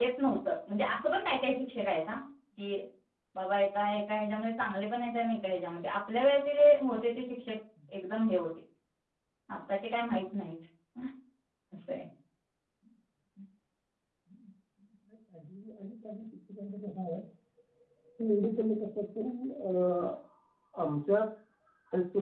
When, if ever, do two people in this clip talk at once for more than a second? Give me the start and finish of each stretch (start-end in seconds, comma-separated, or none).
none